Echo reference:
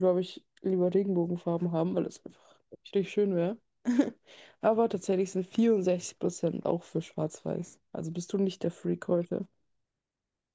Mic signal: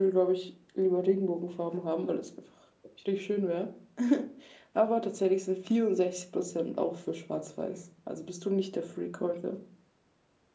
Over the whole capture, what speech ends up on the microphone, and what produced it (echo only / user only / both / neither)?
echo only